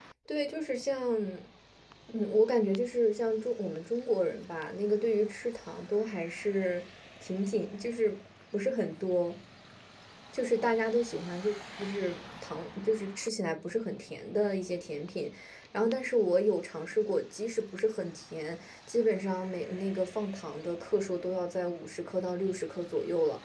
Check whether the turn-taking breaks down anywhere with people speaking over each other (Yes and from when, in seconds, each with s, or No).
No